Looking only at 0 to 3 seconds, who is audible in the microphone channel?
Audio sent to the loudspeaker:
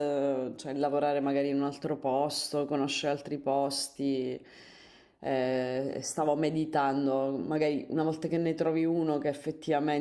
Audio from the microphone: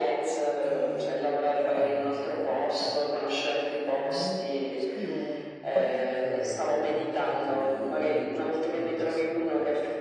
both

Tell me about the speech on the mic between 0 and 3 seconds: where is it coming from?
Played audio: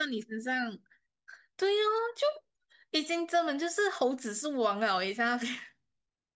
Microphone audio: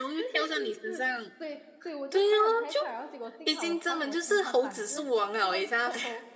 both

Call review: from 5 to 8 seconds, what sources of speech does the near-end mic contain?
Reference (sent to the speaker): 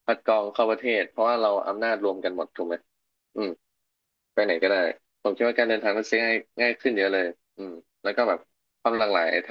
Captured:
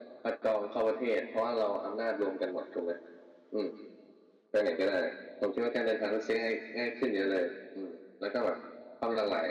echo only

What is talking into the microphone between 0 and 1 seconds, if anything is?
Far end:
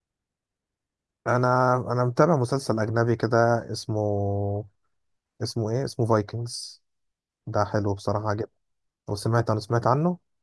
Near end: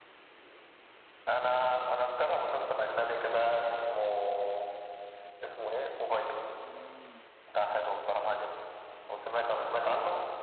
neither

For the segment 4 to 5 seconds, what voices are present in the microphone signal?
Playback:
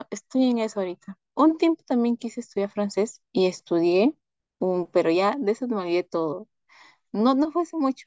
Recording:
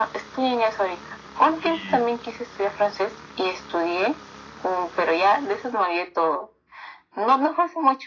echo only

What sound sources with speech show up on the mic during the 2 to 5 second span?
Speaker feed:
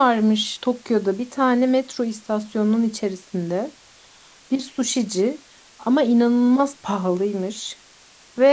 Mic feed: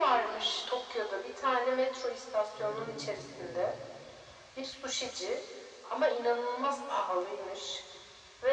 both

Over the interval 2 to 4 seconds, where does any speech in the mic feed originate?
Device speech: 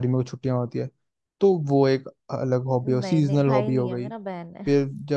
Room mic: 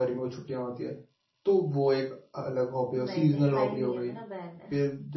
echo only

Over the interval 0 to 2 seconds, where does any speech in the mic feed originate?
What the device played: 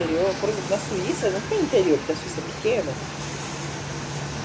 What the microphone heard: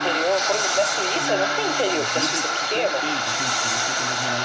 both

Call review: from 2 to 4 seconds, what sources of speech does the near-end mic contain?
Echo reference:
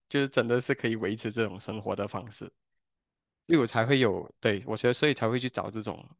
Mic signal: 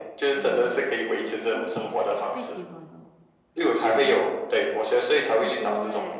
both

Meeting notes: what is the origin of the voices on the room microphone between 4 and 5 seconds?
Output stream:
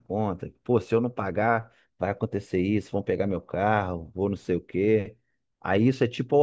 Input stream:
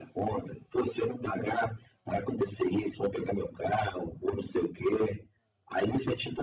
echo only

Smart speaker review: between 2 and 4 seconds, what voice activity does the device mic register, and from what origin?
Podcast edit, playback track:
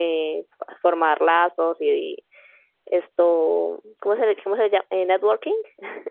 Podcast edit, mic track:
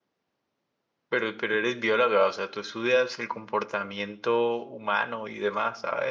user only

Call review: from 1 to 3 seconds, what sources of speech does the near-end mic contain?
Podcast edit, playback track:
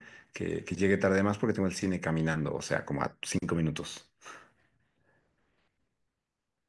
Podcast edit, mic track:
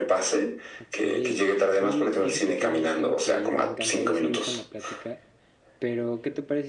both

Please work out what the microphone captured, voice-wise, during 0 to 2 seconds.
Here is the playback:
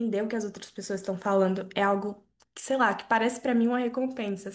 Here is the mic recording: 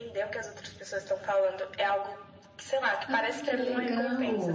echo only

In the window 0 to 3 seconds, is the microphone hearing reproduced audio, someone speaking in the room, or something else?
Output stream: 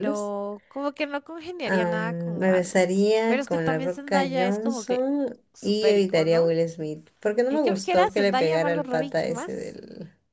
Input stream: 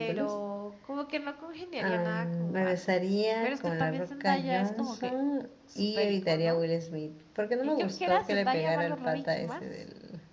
echo only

